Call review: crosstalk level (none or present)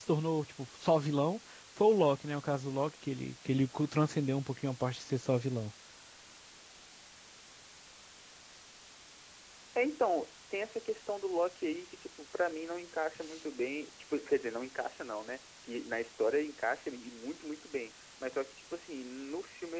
none